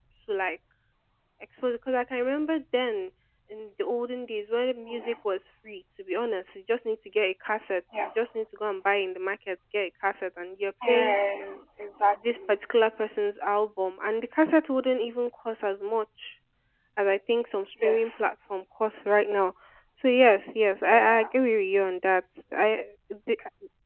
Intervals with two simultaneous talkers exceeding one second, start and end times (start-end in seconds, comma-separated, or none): none